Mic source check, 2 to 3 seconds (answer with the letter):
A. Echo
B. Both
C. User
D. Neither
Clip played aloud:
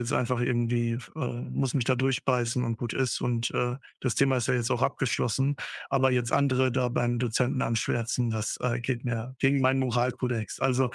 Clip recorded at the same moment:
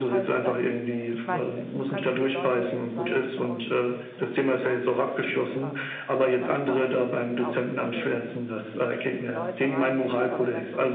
B